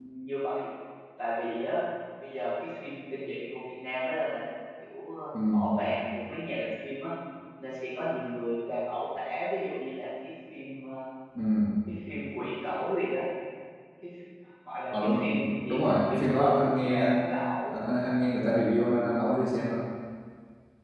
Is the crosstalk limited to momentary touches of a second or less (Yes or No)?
No